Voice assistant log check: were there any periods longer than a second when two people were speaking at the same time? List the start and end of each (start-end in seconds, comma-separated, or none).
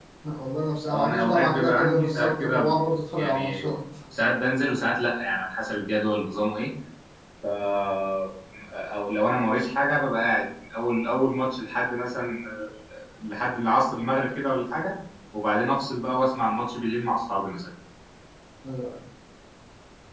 0.8-2.7